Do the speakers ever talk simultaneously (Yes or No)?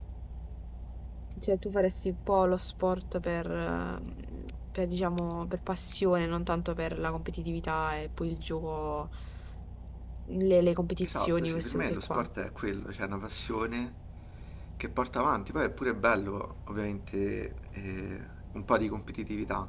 Yes